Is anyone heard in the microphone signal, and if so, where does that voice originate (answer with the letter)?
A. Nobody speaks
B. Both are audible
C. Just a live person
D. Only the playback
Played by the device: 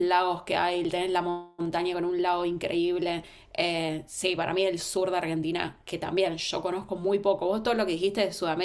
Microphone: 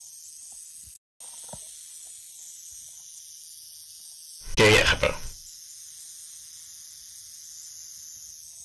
C